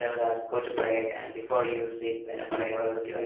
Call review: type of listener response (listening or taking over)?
listening